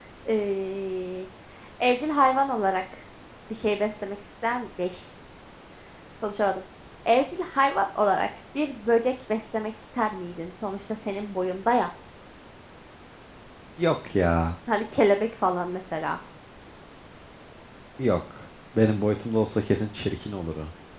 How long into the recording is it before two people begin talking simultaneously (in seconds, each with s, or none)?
none